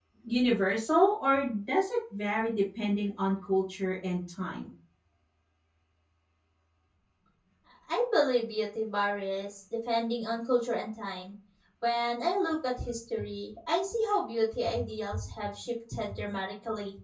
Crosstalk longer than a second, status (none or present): none